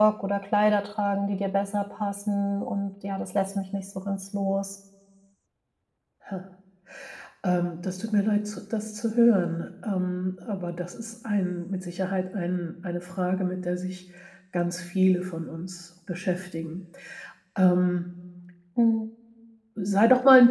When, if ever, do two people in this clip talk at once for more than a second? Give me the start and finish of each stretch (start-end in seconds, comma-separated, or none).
none